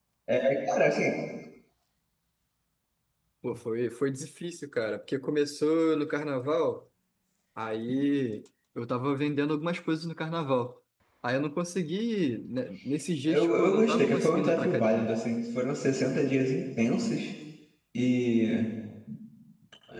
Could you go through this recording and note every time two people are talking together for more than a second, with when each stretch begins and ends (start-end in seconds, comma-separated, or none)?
13.3-15.1